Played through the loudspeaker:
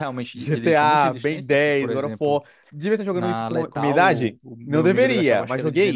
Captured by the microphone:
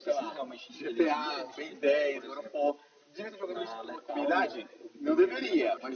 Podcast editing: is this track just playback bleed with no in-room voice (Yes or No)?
Yes